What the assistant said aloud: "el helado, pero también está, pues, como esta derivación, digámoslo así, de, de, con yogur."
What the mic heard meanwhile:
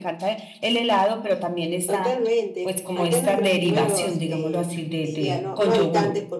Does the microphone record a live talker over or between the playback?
Yes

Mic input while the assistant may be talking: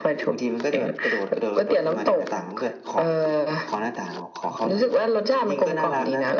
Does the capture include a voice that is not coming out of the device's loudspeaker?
No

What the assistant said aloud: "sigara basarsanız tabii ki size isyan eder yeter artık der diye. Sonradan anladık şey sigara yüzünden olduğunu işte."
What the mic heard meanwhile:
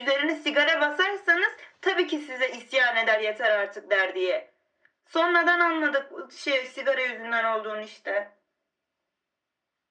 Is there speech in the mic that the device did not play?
No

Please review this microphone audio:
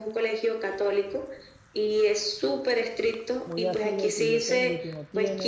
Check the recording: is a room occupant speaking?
Yes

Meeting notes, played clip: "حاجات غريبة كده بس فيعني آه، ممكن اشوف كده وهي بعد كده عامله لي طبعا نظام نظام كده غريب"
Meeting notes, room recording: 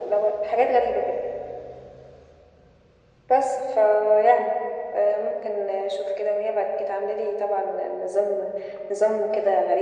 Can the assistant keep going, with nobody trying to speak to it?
Yes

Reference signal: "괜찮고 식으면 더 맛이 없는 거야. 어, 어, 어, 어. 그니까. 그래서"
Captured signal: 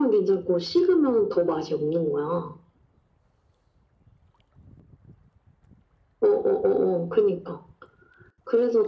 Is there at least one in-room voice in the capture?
No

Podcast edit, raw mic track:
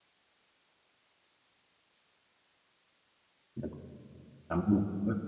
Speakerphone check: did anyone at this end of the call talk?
Yes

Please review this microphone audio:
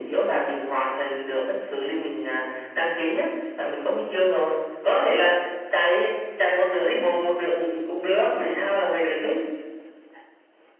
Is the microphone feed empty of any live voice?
Yes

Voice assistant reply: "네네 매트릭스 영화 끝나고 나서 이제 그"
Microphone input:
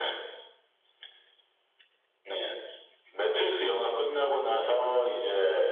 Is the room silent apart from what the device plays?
Yes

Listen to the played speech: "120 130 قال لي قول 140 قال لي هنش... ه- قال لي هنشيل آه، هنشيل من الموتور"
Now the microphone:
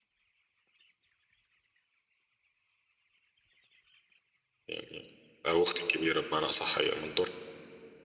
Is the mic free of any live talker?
No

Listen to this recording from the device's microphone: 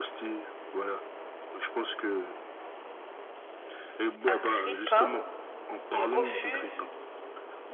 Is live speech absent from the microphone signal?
No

